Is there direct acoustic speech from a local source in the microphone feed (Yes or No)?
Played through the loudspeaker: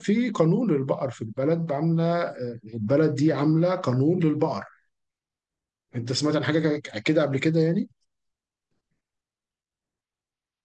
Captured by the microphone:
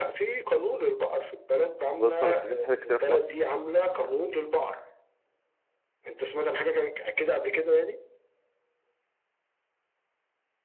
Yes